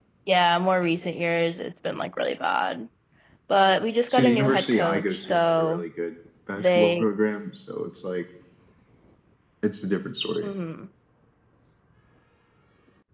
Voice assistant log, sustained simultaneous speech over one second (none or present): present